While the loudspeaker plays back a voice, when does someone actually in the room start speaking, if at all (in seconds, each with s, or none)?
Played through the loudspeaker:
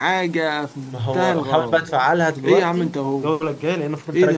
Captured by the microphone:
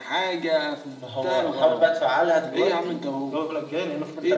none